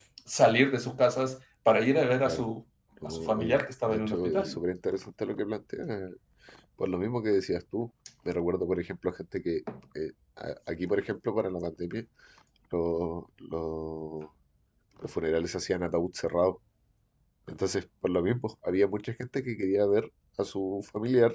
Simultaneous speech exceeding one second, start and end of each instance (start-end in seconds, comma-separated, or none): 3.0-4.6